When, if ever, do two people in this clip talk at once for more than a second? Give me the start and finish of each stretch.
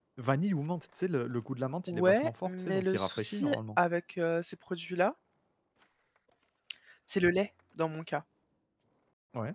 1.9-3.8

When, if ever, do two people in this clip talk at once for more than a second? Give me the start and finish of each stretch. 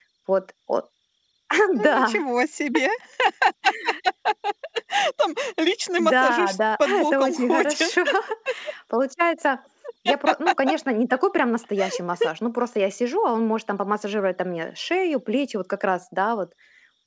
6.0-8.0

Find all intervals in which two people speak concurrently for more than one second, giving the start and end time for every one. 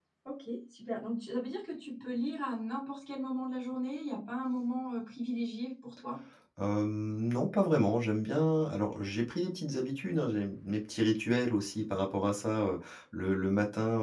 none

